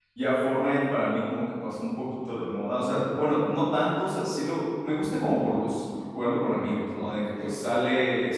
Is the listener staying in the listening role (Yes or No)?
Yes